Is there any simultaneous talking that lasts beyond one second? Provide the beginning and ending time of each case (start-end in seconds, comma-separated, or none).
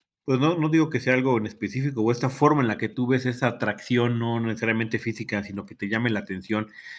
none